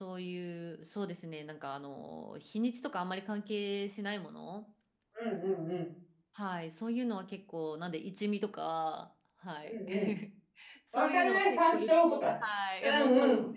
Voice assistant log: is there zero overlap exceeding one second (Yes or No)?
No